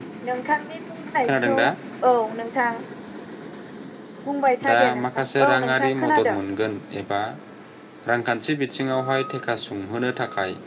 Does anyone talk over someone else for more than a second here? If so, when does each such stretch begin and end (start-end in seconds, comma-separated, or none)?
4.7-6.3